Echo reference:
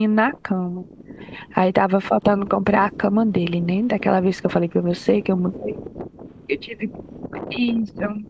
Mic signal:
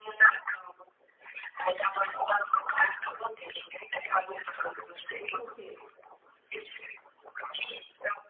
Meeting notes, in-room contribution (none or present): present